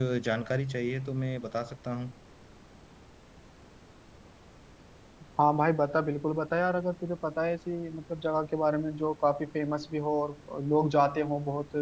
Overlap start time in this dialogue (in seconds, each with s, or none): none